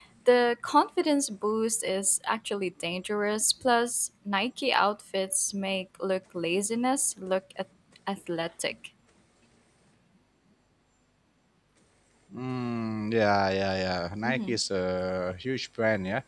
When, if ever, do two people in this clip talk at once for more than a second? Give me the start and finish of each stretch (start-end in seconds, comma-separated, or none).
none